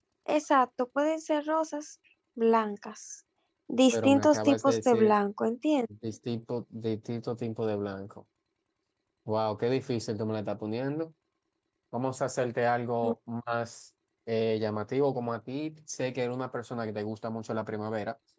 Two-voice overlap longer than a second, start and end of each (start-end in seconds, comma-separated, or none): 3.9-5.1